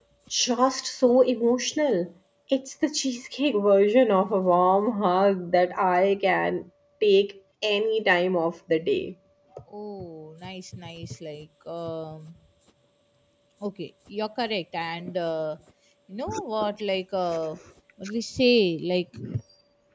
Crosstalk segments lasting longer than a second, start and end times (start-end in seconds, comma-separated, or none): none